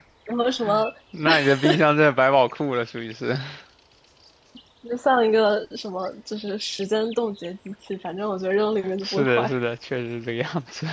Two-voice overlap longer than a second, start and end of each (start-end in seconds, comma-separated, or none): none